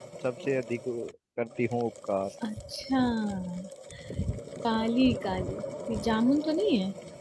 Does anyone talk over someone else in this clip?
No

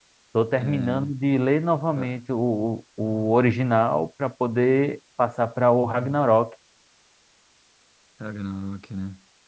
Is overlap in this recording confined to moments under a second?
Yes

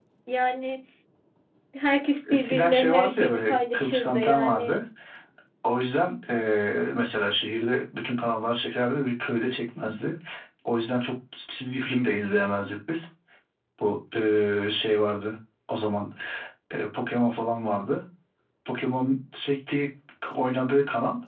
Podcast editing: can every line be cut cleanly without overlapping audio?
No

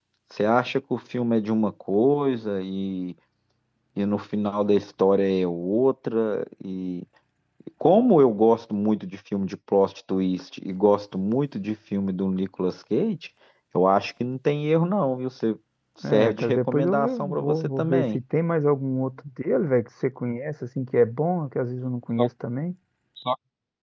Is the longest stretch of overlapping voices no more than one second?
No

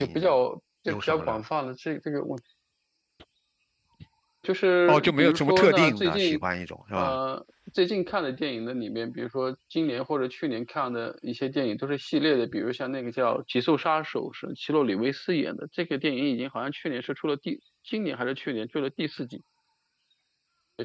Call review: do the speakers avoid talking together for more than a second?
No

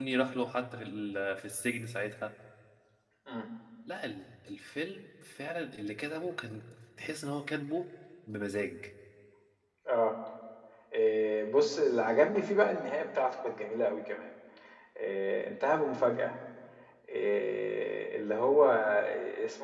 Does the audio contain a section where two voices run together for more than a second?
No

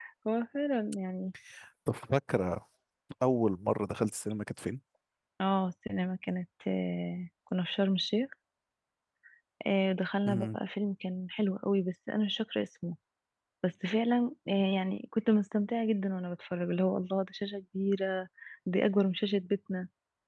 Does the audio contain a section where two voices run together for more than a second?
No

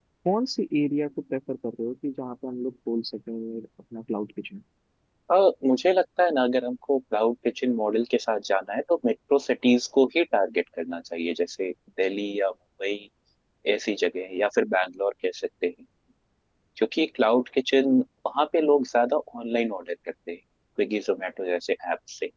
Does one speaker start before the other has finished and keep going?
No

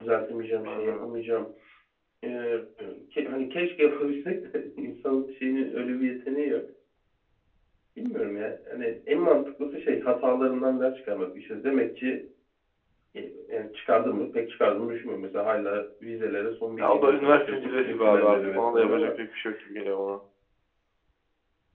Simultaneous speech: Yes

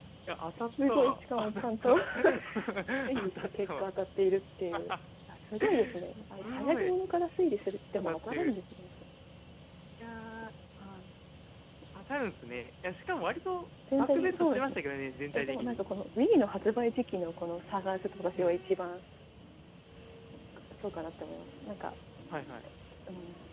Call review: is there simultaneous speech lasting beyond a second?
Yes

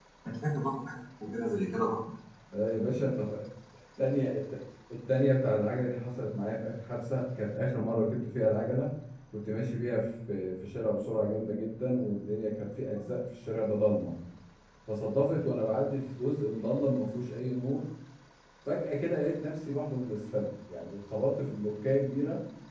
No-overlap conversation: Yes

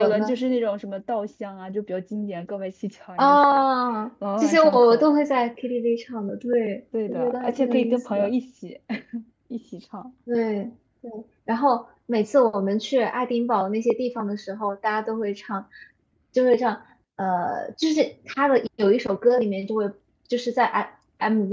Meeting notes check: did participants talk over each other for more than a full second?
Yes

